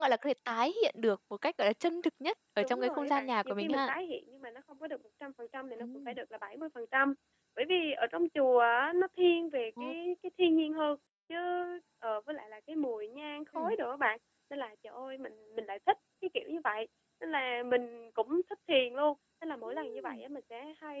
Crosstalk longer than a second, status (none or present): present